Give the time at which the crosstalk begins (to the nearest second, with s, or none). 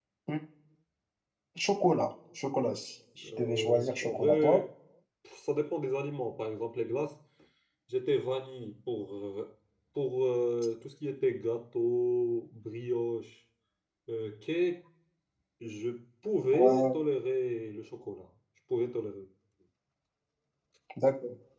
3 s